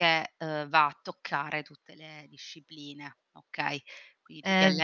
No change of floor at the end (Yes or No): No